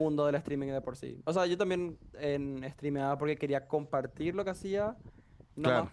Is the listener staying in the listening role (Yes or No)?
Yes